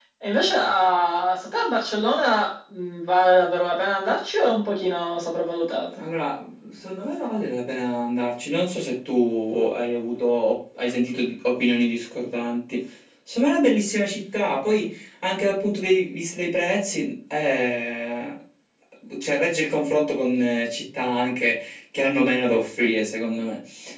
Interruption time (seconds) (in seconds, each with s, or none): none